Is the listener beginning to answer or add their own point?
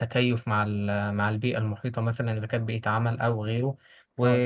No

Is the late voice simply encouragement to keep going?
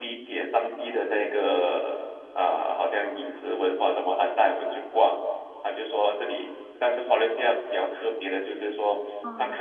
Yes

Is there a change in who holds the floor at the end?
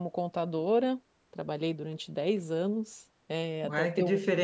Yes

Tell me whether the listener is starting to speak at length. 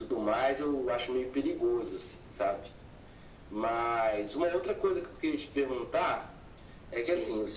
No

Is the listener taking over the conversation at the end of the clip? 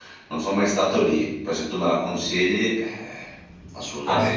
Yes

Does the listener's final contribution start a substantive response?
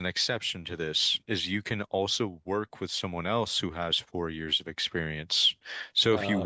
No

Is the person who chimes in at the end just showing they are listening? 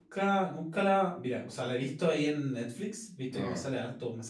Yes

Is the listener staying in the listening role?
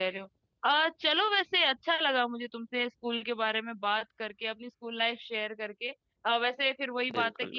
Yes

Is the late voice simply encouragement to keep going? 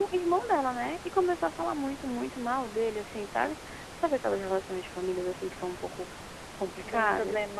No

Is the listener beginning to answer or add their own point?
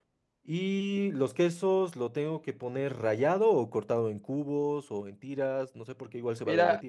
Yes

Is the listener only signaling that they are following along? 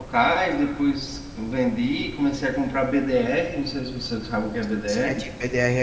No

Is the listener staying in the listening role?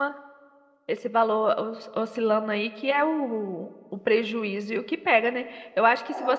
Yes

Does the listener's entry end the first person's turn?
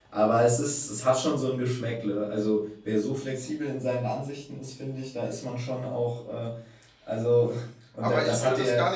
Yes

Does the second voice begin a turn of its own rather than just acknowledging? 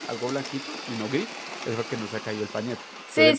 Yes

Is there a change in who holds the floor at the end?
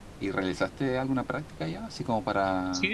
No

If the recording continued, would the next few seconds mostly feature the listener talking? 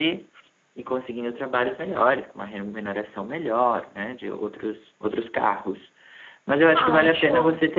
No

